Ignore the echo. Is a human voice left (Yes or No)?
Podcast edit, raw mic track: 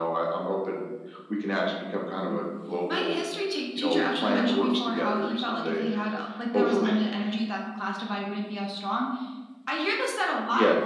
No